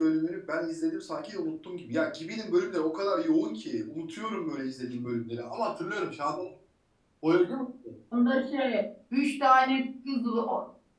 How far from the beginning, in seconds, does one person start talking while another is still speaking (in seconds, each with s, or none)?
none